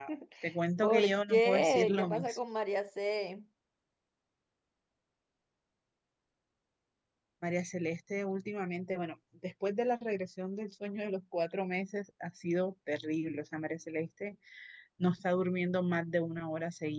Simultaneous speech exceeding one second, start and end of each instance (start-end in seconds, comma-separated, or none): 0.8-2.4